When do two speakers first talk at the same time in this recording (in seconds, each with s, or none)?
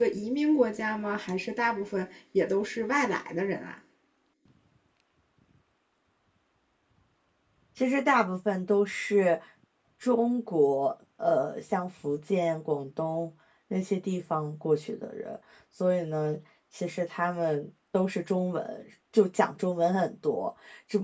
none